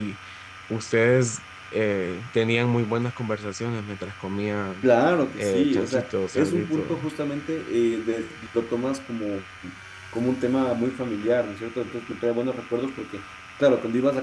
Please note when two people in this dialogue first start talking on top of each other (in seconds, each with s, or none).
5.4 s